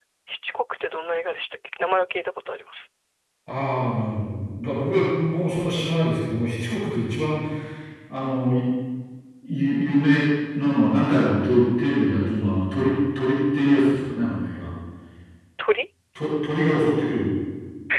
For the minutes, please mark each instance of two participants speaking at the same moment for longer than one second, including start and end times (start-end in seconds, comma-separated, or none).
none